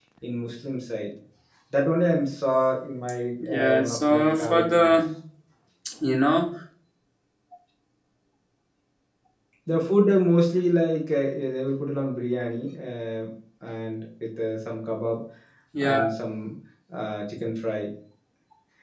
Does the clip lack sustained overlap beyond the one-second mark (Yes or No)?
No